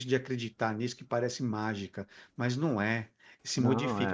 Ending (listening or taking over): listening